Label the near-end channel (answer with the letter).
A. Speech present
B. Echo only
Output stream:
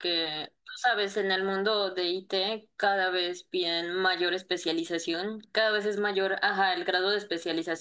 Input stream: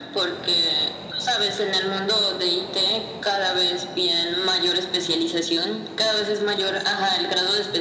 B